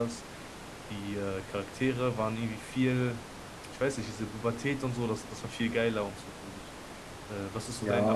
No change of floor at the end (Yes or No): No